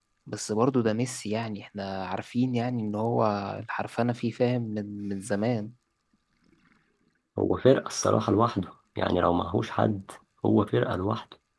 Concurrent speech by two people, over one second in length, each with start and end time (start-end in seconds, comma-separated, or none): none